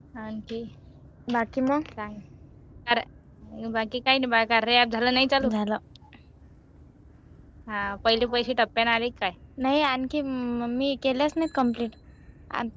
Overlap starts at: none

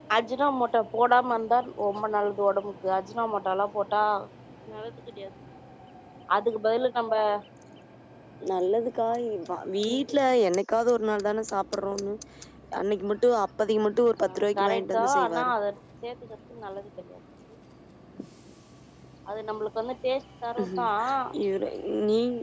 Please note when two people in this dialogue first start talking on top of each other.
14.2 s

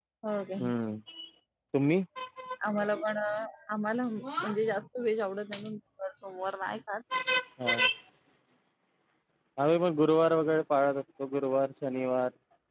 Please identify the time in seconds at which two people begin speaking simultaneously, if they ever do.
none

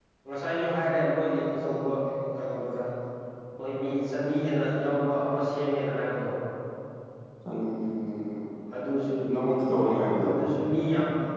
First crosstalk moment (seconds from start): none

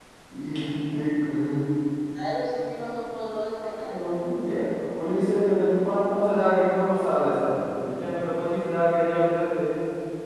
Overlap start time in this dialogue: none

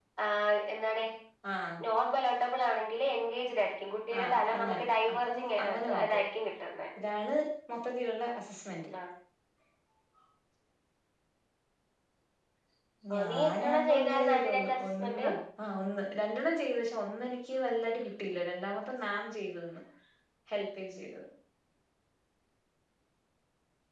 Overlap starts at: 4.2 s

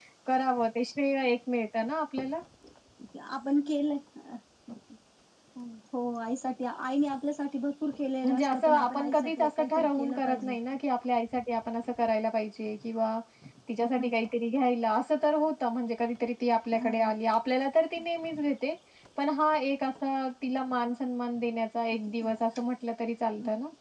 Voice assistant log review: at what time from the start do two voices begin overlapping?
8.2 s

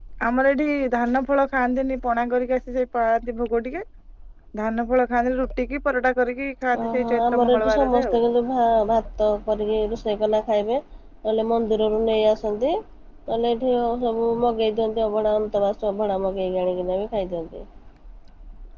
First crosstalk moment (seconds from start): 6.7 s

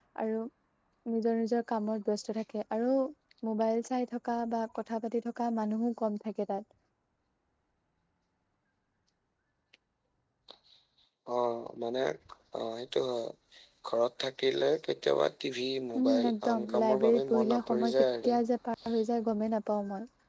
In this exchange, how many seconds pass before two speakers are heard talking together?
15.9 s

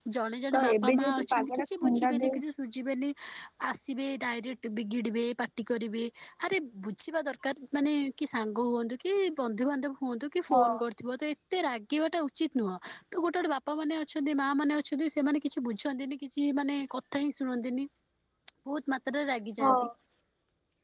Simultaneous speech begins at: 0.5 s

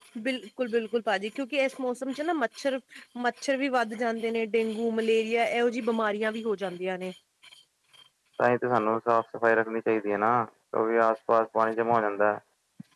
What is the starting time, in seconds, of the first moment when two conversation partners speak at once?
none

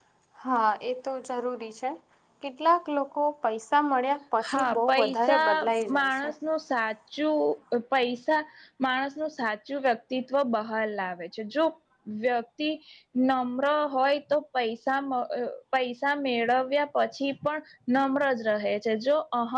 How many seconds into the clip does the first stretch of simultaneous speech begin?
4.4 s

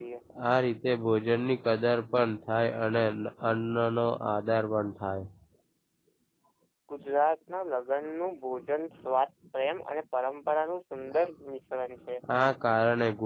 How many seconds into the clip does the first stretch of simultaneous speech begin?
none

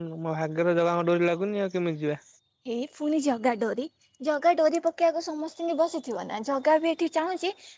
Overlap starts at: none

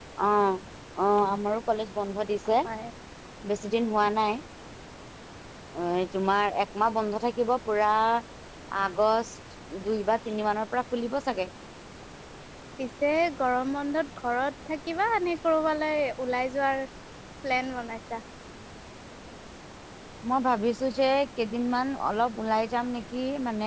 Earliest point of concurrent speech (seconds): none

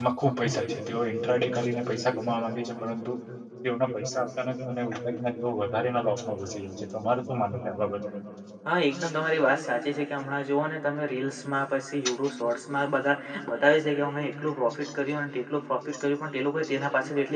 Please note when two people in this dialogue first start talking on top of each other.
none

